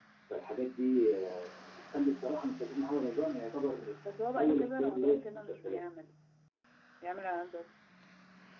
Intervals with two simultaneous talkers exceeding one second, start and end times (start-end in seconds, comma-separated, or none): 4.4-5.8